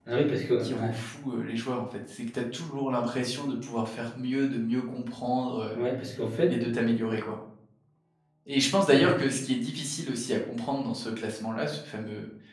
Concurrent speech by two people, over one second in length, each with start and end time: none

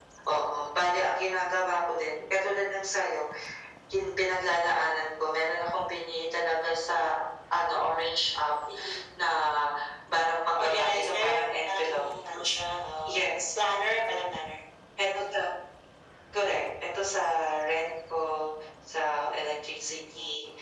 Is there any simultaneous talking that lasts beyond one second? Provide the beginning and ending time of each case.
10.6-11.9

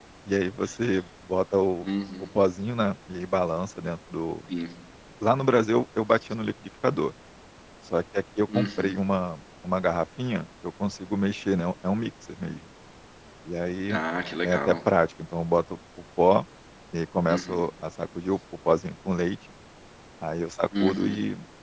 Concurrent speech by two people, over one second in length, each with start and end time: none

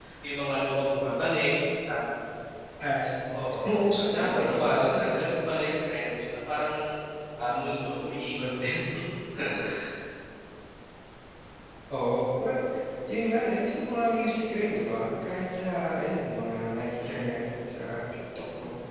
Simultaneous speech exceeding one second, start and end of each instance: 3.6-5.1

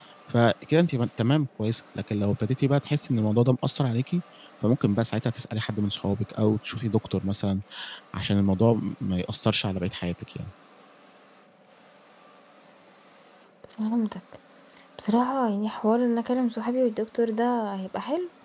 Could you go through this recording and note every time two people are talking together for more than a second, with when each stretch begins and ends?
none

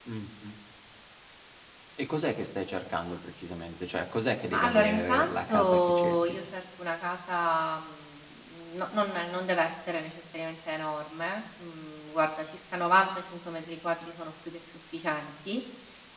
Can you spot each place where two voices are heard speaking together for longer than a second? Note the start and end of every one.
4.5-6.4

